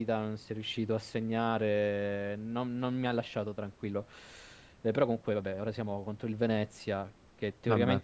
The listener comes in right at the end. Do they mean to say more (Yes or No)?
No